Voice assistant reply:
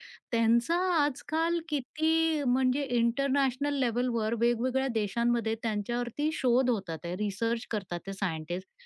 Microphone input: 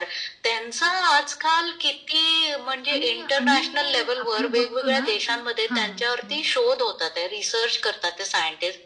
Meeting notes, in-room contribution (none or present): present